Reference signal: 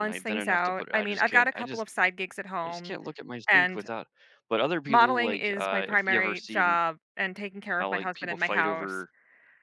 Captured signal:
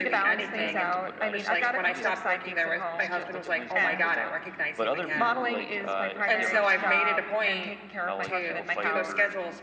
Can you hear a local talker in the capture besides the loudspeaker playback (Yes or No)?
Yes